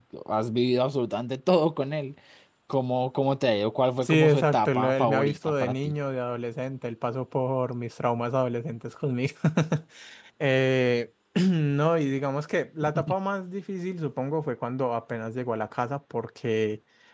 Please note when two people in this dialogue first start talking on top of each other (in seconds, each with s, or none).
4.0 s